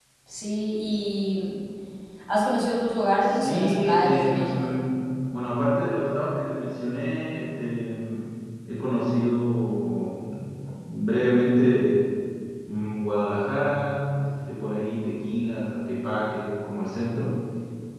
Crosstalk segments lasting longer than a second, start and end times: 3.2-4.7

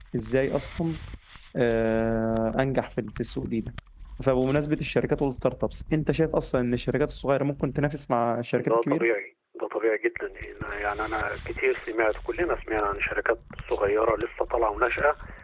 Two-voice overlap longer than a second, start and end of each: none

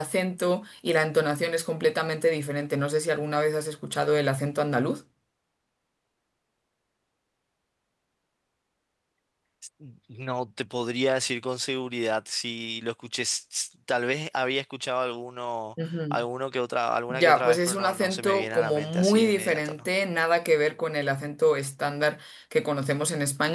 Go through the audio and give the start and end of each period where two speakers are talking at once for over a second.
17.1-19.9

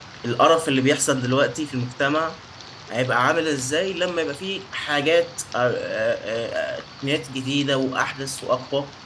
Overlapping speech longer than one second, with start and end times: none

